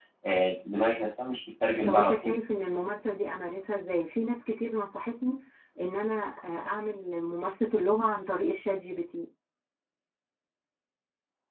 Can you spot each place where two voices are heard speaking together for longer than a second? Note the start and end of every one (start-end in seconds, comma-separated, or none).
none